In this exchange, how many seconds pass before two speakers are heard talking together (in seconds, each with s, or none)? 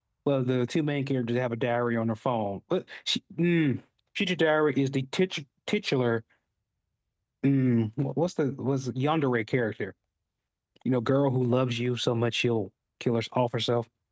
none